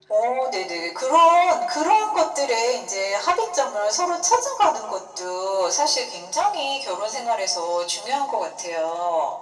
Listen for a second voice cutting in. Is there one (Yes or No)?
No